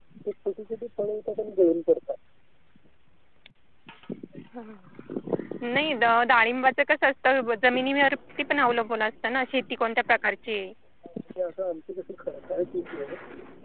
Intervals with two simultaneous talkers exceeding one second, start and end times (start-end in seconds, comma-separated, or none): none